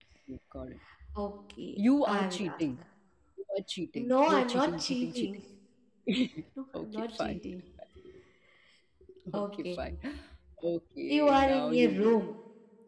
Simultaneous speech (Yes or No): Yes